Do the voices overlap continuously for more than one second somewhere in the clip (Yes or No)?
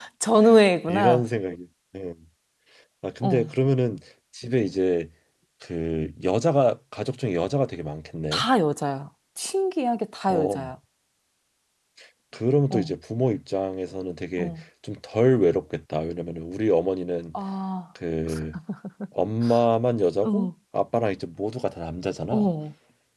No